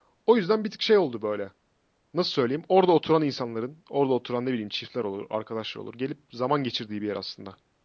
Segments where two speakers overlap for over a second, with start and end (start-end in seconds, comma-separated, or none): none